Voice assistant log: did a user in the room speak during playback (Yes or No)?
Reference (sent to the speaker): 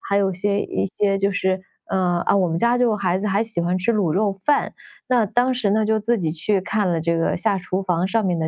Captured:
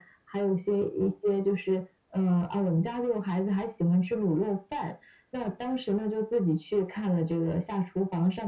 No